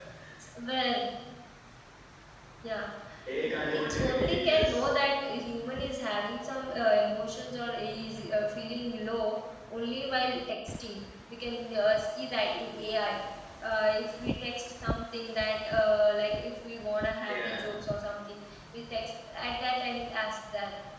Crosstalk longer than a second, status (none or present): present